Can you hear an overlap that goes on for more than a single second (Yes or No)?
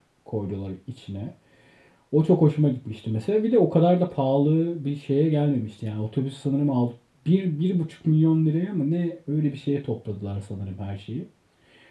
No